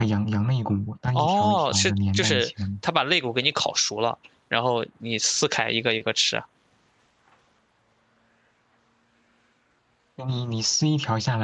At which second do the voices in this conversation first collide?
1.1 s

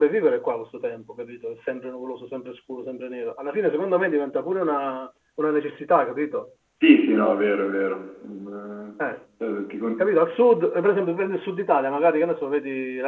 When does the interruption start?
none

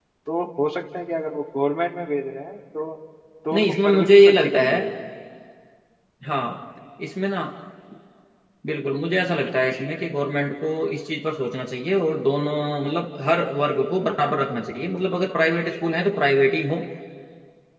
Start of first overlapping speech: 3.5 s

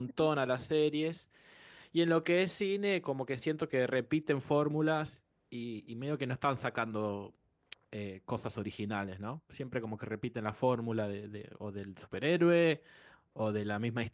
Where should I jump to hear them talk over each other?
none

